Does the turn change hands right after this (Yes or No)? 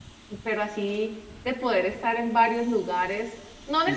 Yes